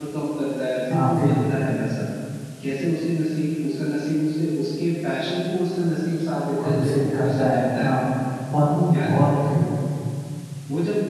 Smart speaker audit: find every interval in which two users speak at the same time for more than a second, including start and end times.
6.6-7.9

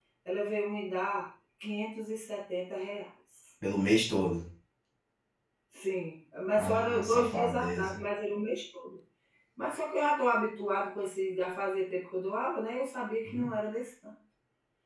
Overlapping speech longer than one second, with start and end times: 6.6-8.0

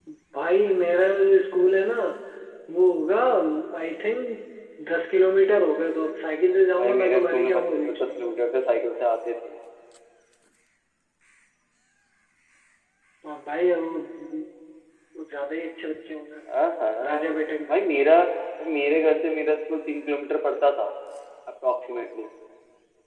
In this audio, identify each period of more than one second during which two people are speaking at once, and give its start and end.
6.8-8.1

